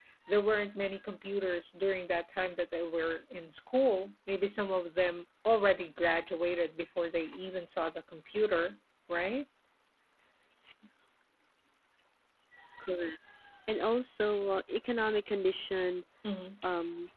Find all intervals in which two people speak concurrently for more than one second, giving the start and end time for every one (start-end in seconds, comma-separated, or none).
none